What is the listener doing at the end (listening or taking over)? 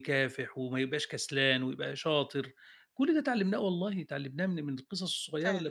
listening